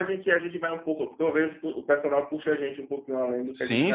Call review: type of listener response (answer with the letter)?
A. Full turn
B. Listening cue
A